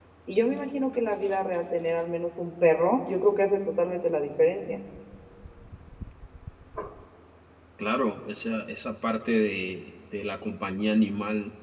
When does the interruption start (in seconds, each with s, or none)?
none